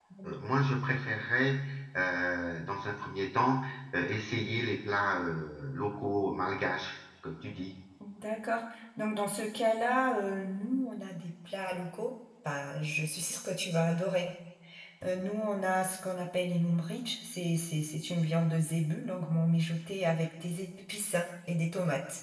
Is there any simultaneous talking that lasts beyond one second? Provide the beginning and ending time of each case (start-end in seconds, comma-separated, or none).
none